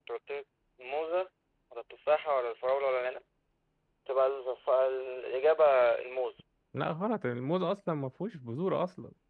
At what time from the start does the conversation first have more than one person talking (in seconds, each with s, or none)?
none